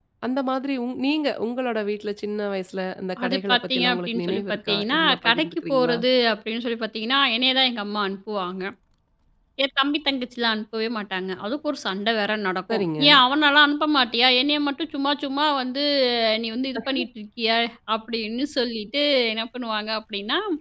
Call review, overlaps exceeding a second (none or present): present